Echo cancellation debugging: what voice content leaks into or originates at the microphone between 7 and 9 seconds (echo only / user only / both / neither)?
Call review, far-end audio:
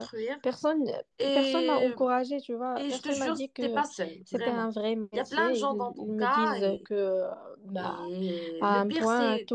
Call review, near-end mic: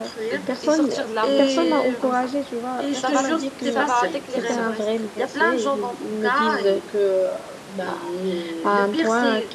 echo only